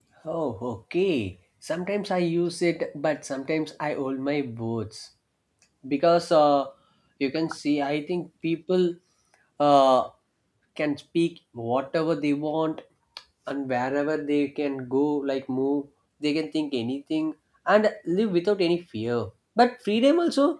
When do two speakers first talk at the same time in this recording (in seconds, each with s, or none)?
none